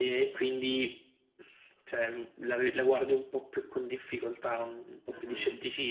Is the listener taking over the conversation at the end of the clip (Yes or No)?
Yes